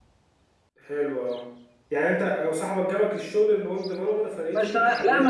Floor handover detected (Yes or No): Yes